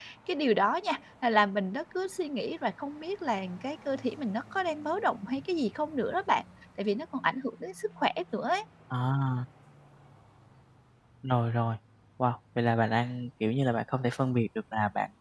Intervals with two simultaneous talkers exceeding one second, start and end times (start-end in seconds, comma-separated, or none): none